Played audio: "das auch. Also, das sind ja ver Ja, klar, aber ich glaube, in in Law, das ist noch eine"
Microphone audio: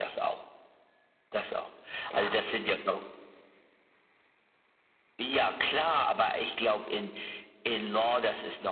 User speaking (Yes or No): Yes